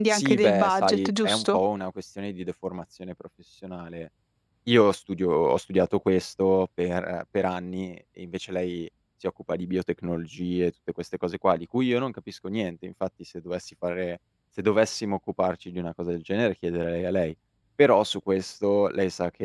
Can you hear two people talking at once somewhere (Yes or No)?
Yes